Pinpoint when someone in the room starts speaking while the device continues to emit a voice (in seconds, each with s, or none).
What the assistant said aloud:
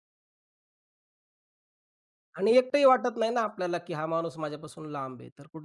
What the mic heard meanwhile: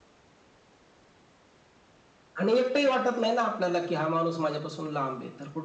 none